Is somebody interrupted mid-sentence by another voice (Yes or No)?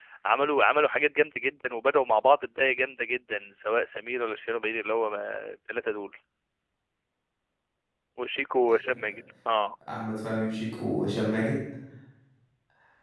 No